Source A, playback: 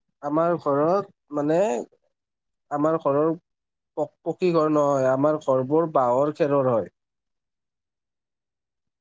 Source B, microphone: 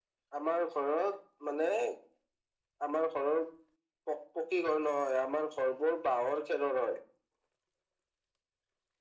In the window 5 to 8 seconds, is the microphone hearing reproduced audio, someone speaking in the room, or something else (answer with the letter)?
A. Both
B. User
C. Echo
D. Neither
C